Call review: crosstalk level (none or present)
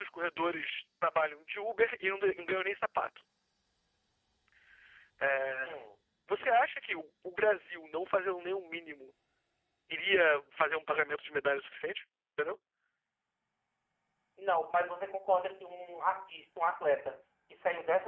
none